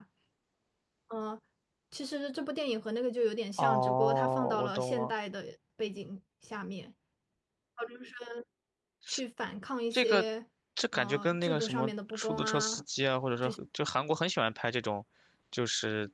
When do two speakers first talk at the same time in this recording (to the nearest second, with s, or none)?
4 s